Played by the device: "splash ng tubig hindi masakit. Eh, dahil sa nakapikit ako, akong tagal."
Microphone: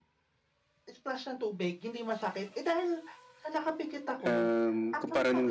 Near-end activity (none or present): present